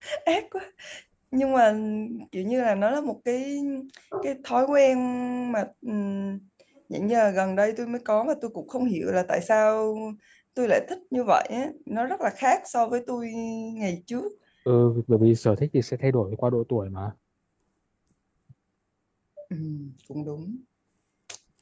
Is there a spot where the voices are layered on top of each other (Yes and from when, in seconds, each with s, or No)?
No